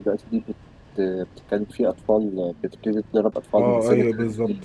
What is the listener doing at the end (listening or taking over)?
taking over